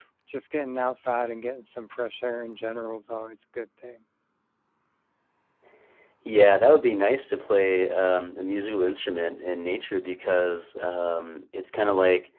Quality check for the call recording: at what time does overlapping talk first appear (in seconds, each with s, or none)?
none